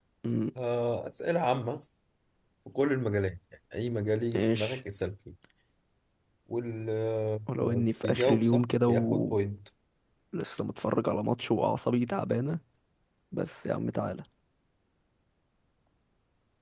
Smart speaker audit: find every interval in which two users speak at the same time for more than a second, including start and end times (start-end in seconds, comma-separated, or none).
8.0-9.4